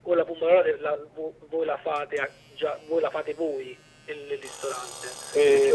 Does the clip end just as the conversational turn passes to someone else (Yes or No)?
No